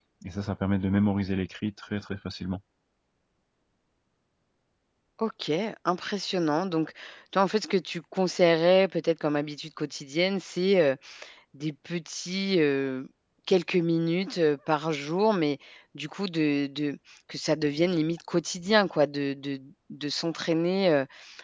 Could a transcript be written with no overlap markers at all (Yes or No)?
Yes